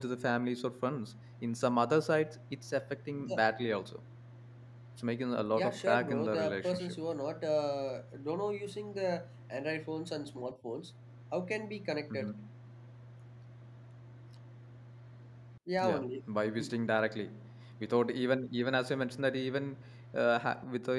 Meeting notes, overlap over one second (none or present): present